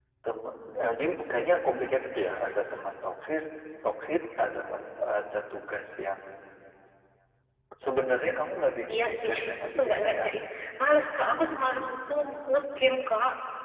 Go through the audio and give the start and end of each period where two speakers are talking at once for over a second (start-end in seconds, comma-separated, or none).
8.9-10.4